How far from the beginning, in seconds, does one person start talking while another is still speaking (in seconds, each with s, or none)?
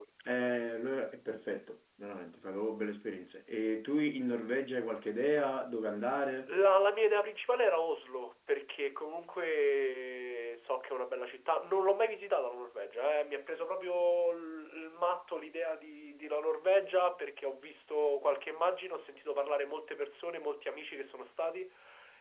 none